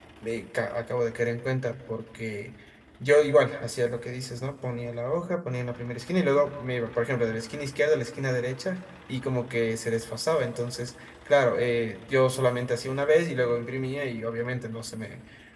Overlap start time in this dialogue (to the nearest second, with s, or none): none